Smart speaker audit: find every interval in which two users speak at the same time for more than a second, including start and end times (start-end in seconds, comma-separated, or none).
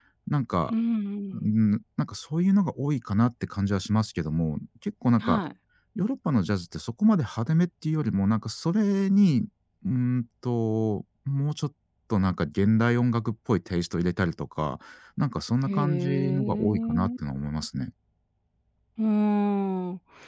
15.7-17.1